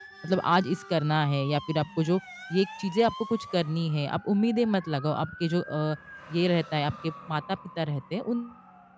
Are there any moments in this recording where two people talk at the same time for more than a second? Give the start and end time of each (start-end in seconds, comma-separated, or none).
none